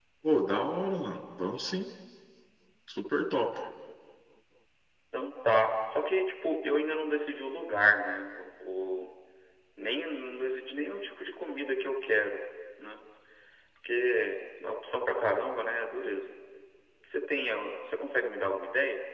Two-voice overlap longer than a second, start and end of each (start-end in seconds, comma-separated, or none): none